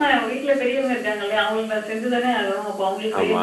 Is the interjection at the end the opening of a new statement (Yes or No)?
No